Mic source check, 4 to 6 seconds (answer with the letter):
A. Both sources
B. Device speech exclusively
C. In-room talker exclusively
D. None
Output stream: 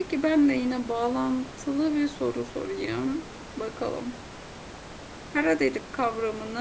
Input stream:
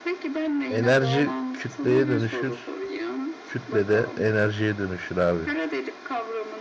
A